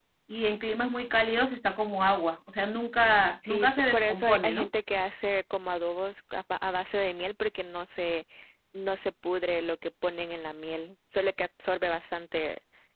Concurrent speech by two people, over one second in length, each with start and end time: 3.5-4.7

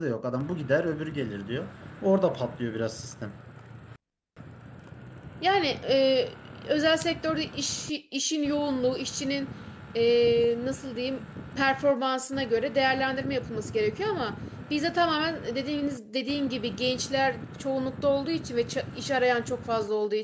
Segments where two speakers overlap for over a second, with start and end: none

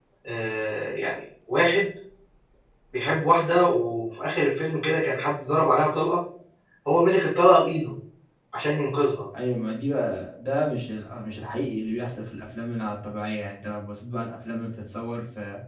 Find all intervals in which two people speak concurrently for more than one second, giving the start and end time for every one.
none

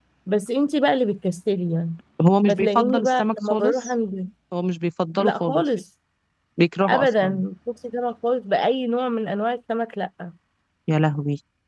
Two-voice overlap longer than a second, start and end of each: 2.5-3.9

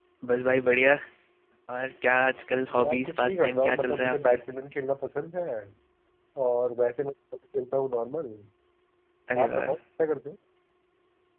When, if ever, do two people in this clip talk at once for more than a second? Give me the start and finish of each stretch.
2.8-4.4

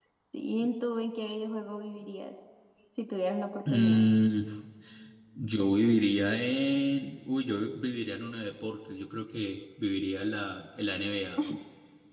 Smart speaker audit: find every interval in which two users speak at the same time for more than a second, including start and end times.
none

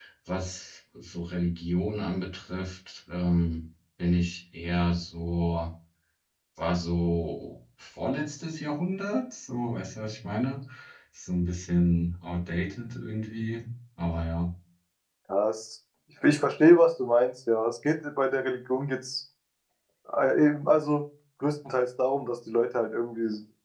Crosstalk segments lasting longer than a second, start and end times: none

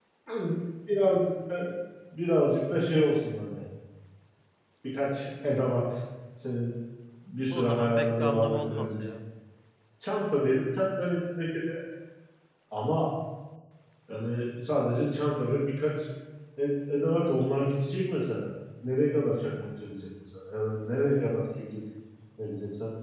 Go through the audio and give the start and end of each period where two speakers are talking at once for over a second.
7.5-9.1

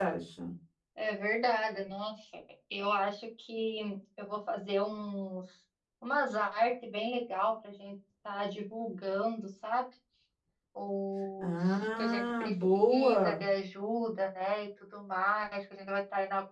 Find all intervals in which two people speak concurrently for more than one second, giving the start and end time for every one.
11.4-13.4

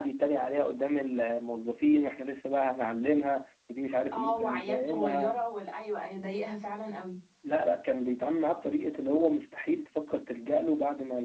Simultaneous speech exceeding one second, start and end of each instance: 4.1-5.3

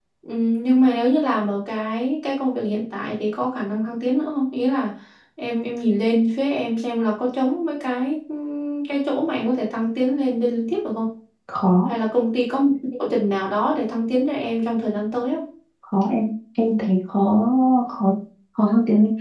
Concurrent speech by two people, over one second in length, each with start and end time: none

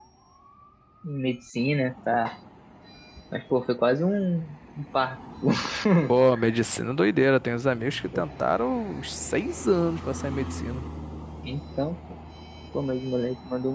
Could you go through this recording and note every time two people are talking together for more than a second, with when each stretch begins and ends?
none

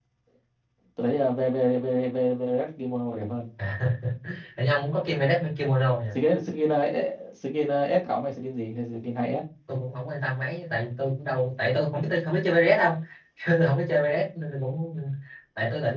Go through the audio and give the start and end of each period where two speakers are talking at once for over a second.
none

